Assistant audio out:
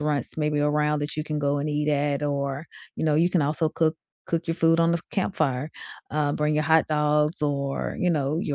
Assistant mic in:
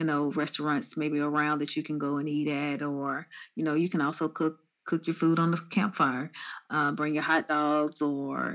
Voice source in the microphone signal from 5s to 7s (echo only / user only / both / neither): echo only